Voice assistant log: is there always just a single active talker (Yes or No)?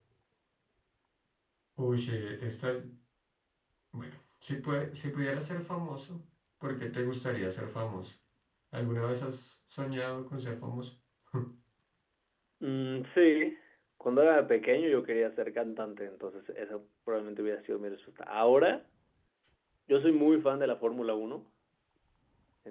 Yes